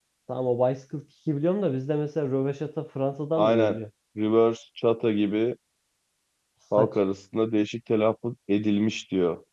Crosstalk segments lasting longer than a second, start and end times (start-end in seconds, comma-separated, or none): none